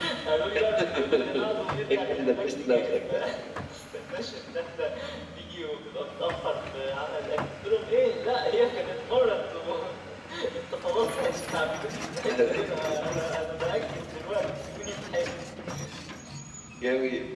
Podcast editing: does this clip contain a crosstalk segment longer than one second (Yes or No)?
Yes